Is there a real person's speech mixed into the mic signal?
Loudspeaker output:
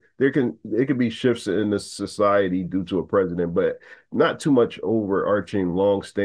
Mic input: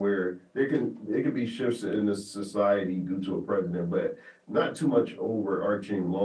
No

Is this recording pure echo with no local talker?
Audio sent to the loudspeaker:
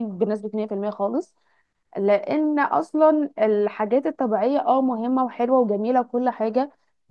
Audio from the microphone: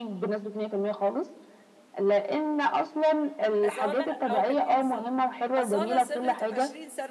No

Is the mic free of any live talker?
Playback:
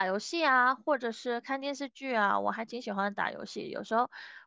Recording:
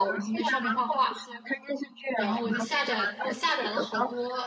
No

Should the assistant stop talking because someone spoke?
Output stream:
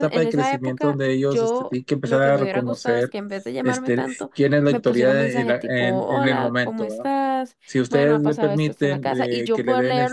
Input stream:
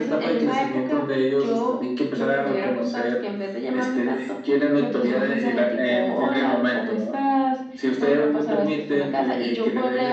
No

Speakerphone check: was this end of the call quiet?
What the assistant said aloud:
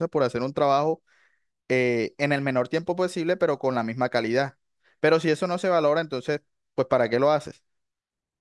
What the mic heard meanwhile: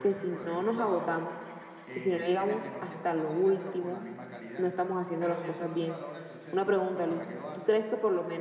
No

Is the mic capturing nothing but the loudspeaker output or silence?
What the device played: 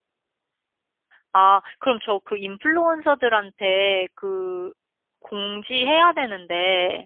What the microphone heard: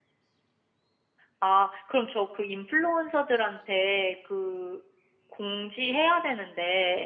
Yes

